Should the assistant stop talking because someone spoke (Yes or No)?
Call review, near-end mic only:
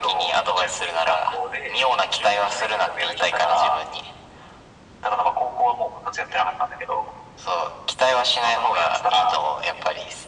No